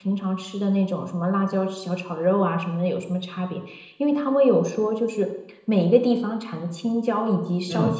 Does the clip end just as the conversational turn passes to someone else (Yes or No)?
No